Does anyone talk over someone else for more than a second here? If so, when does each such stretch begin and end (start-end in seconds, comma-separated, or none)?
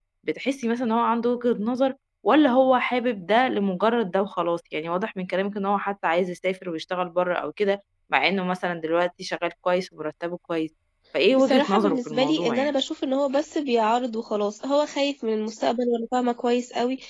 11.3-12.7